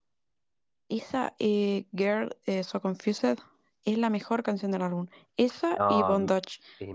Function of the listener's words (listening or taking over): taking over